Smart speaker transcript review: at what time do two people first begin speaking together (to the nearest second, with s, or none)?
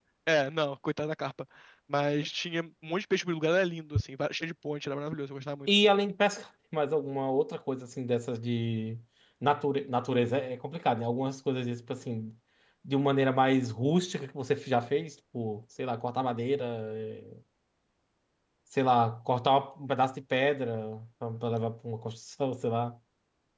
none